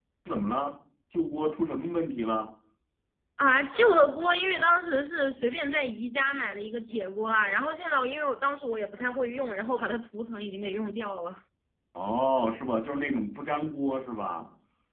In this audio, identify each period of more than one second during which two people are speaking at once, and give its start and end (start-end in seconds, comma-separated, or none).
none